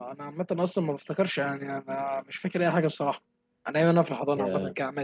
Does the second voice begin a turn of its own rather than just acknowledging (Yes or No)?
No